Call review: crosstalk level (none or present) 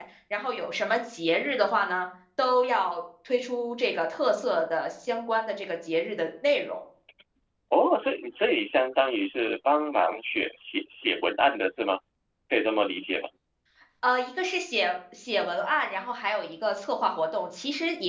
none